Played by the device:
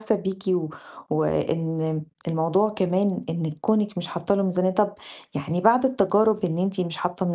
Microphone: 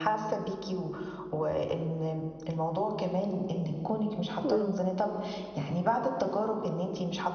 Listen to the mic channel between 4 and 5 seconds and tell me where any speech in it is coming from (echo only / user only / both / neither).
both